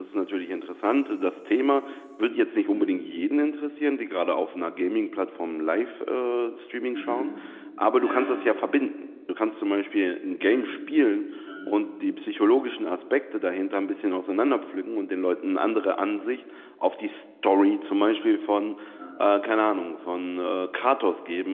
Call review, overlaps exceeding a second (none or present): none